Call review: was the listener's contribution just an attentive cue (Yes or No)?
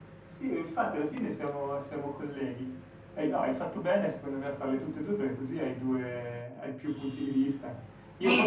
Yes